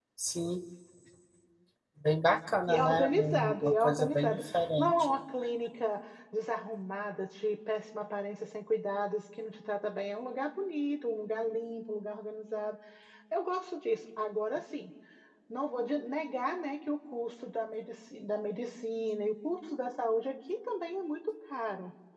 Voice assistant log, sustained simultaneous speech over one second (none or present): present